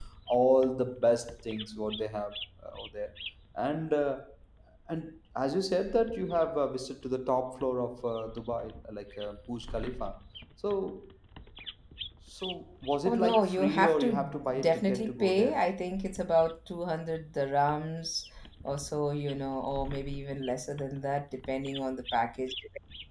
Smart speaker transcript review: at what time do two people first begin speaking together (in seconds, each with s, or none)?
13.1 s